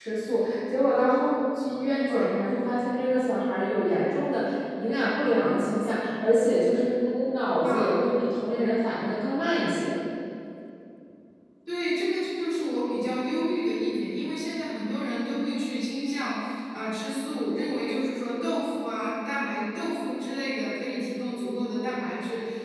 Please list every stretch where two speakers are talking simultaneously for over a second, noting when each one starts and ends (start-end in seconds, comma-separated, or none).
none